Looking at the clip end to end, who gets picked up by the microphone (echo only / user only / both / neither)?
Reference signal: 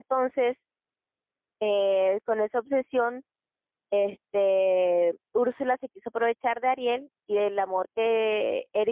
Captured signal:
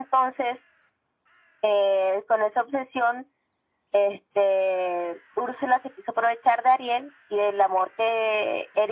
echo only